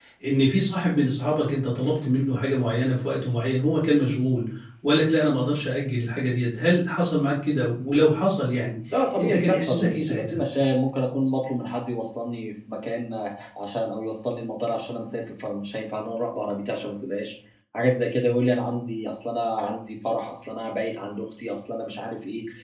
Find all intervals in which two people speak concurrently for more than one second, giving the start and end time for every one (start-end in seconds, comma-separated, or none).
9.2-10.4